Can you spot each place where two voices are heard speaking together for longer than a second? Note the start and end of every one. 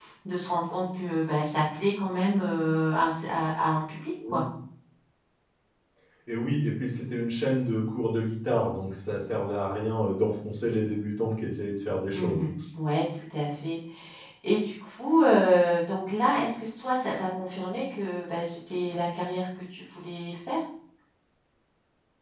none

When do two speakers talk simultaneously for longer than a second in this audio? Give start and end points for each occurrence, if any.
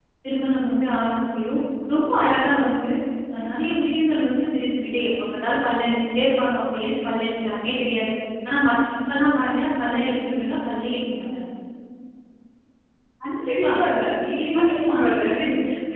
none

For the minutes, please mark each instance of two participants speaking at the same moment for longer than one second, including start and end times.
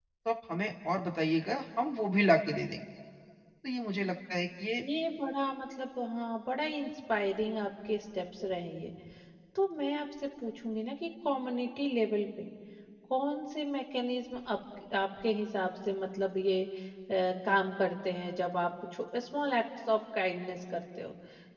none

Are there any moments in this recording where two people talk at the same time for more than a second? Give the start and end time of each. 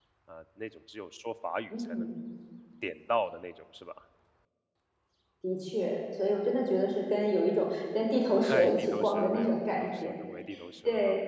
8.4-10.1

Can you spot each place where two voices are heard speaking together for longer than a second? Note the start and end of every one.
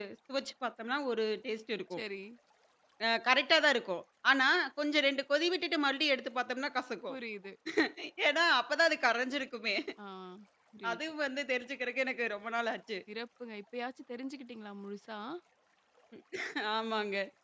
none

